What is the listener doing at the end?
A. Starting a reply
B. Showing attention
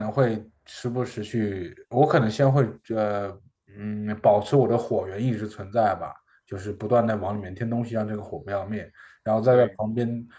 B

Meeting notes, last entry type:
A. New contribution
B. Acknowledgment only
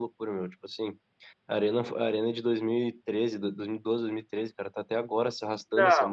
A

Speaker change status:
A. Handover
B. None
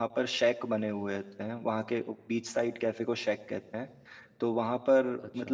B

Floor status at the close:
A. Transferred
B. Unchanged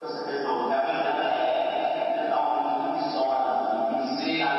B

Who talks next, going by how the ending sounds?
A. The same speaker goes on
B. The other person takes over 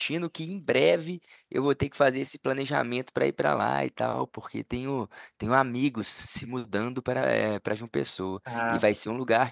A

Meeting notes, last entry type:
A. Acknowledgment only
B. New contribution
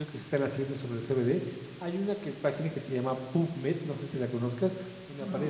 A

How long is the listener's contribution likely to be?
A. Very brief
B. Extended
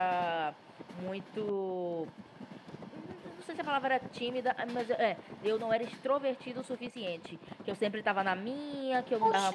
B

